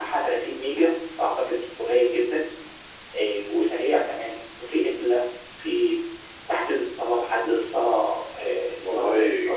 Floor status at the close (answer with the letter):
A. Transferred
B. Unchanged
A